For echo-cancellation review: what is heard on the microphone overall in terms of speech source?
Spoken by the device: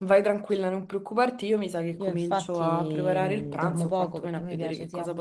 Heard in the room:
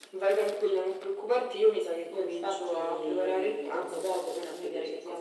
echo only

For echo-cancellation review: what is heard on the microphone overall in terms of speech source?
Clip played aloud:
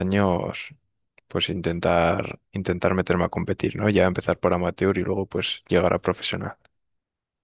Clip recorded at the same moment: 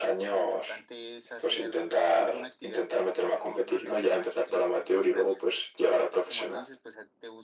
both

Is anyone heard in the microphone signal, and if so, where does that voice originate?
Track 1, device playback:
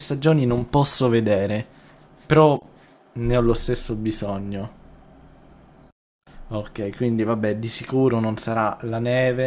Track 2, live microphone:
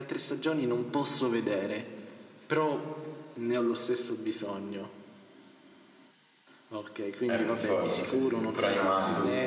both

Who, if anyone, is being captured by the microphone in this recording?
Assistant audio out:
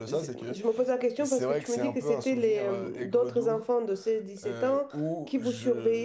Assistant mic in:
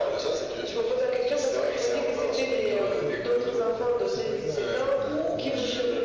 both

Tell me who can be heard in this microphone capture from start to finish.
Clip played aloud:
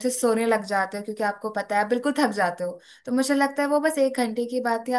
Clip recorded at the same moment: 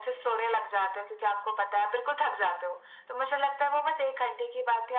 echo only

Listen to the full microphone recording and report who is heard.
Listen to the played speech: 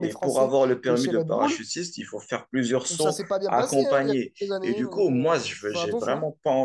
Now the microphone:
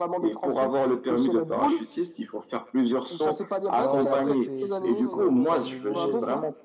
both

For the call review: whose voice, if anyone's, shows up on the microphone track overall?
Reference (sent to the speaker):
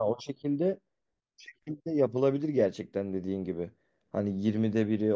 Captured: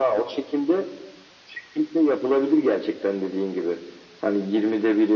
echo only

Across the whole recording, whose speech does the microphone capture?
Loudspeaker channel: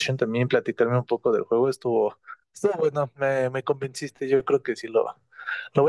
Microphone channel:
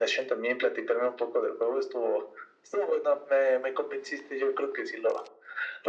echo only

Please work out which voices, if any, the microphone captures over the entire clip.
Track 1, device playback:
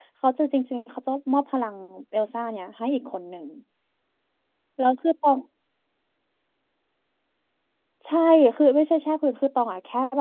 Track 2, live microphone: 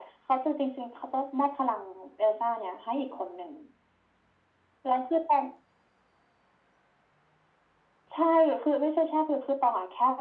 echo only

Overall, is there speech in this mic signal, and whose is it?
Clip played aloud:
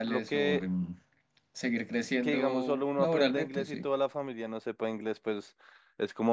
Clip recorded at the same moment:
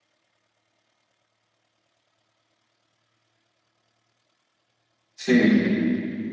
user only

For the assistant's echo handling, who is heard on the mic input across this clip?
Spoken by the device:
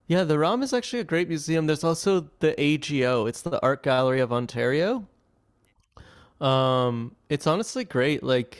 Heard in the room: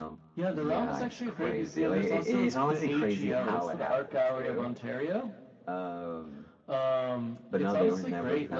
both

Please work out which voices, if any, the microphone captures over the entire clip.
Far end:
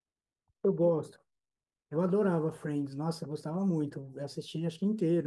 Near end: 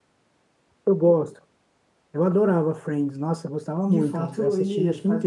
both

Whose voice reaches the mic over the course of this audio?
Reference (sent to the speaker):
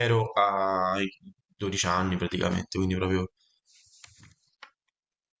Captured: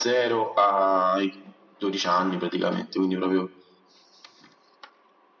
echo only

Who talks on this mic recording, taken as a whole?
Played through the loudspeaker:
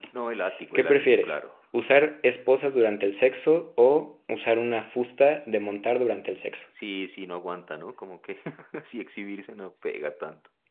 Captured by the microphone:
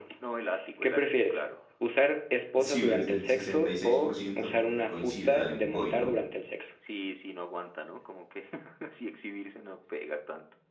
both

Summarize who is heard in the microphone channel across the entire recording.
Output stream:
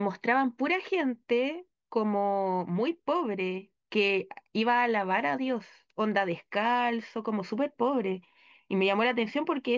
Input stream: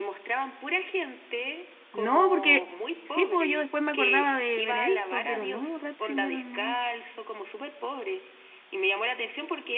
both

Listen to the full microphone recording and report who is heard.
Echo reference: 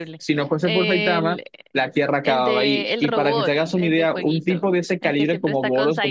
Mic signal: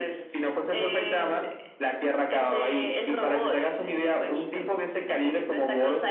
echo only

